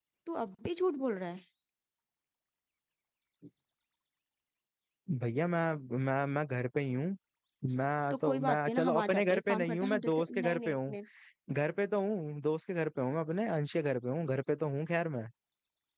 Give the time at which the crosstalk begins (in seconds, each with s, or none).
8.1 s